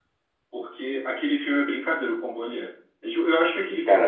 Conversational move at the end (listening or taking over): listening